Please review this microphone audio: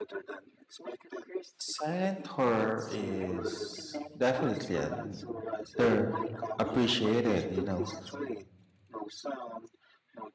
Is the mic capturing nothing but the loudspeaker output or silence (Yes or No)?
No